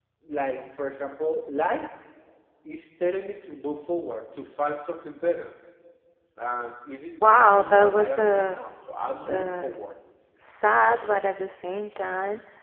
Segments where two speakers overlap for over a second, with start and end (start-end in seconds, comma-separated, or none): 7.2-8.6